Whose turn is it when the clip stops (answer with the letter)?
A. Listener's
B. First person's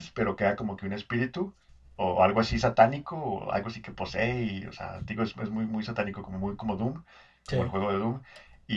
B